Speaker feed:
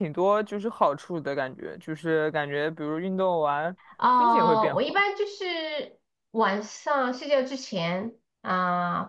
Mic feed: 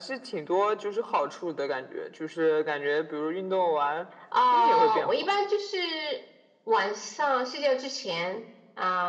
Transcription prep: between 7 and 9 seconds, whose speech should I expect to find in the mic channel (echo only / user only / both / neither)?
echo only